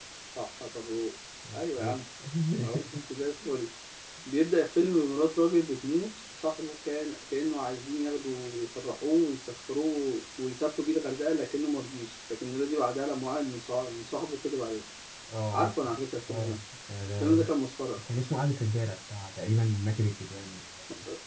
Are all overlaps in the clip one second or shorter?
Yes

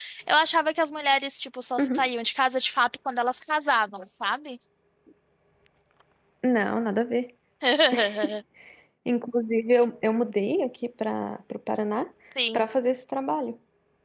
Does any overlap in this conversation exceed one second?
No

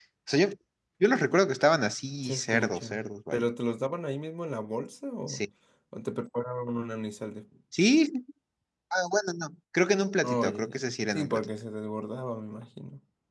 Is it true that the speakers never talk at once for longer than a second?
No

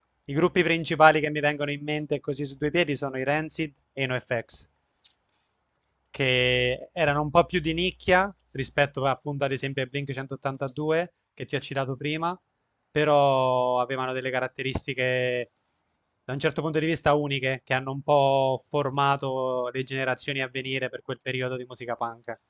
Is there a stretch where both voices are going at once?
No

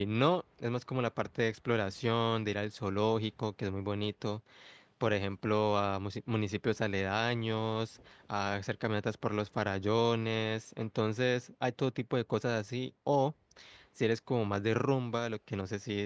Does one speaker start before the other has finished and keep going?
No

